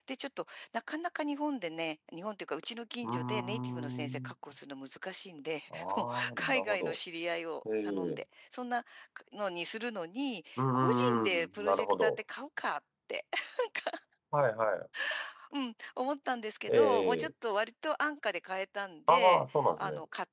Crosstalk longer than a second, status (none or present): present